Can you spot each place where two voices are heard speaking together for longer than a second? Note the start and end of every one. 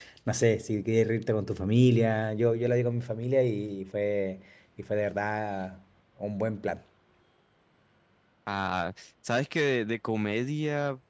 none

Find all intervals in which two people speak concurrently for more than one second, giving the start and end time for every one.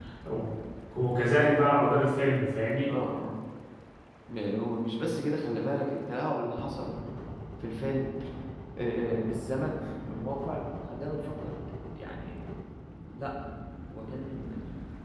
none

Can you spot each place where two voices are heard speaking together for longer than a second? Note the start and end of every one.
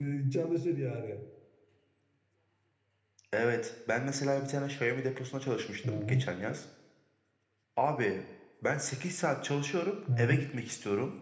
none

